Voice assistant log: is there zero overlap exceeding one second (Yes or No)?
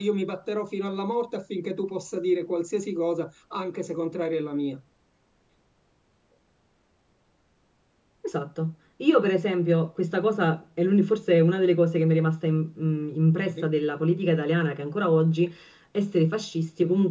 Yes